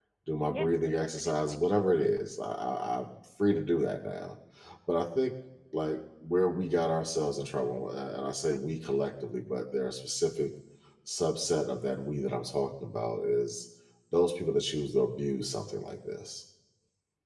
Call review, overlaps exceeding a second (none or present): present